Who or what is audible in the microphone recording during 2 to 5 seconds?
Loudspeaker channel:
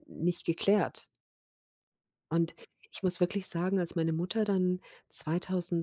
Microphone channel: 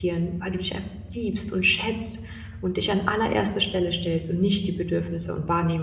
user only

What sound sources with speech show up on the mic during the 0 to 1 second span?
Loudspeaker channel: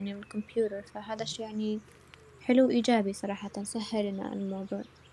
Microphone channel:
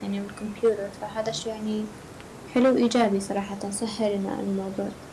echo only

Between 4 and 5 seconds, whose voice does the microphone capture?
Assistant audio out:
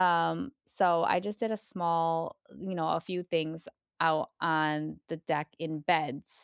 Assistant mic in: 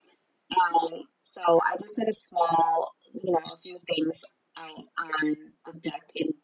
echo only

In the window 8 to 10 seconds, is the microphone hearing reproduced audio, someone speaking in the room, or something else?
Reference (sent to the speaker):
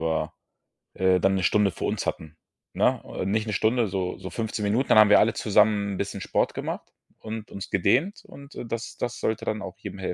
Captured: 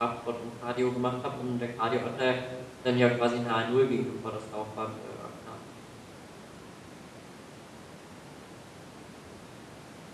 neither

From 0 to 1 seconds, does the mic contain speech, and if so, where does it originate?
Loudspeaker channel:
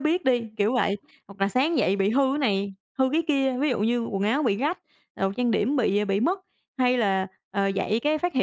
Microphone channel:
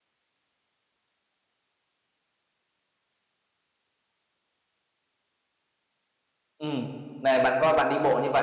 neither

